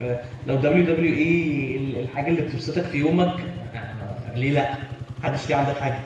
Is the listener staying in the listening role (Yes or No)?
No